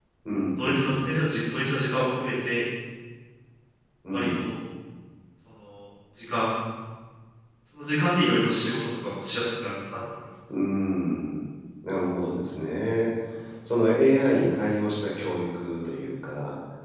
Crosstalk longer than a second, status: none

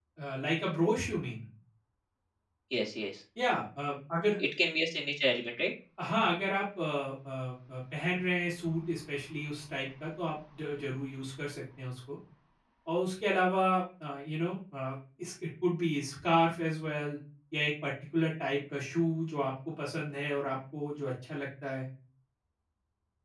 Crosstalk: none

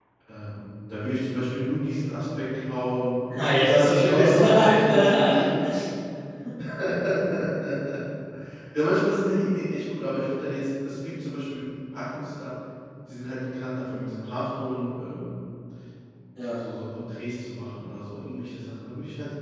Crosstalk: present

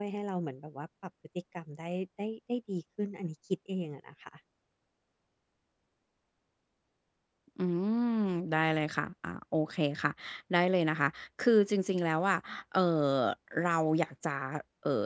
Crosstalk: none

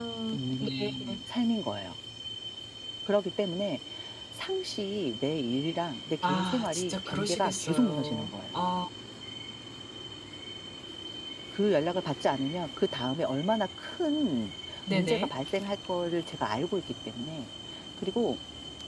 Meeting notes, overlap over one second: present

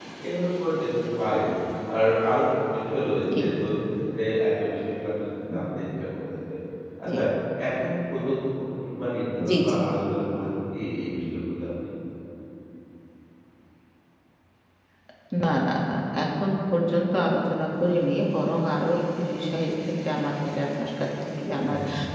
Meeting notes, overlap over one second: none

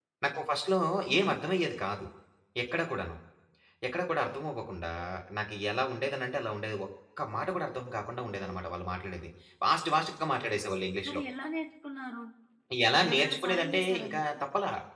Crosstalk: present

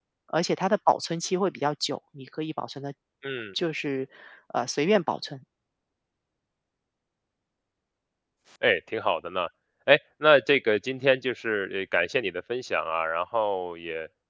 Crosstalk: none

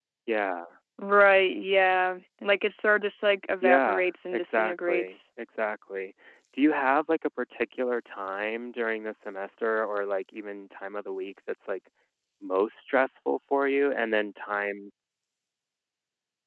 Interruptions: present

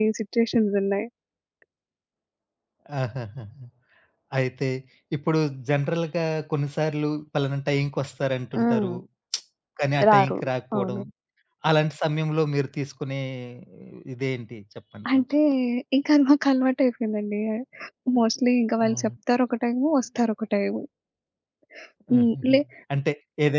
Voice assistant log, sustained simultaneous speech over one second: none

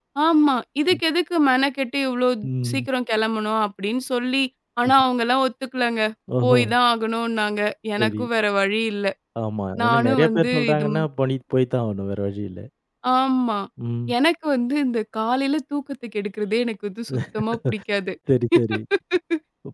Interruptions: present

